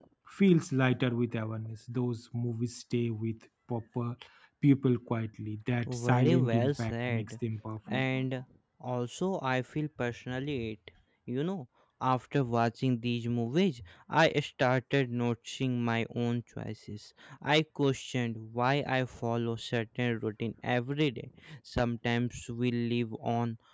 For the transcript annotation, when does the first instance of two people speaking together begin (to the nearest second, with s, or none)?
6 s